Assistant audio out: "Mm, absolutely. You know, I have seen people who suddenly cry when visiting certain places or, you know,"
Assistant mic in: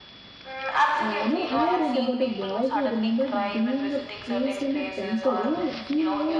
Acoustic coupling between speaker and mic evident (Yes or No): Yes